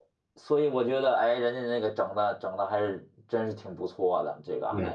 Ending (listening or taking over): taking over